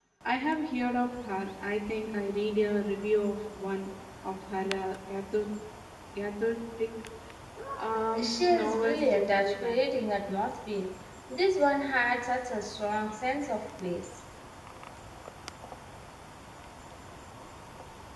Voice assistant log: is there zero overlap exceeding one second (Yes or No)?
No